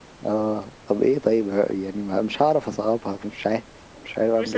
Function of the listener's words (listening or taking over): taking over